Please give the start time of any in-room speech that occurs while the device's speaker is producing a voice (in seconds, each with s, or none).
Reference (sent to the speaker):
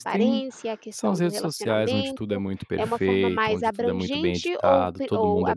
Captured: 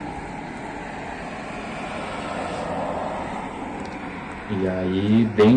4.5 s